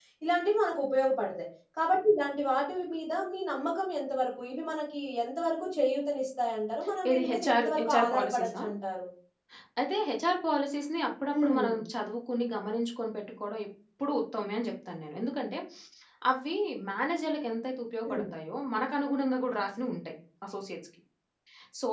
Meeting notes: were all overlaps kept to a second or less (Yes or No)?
No